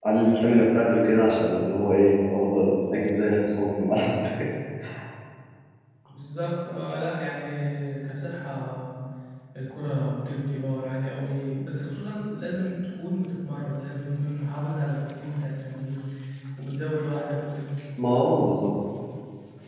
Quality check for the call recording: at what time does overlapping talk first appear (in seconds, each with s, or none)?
none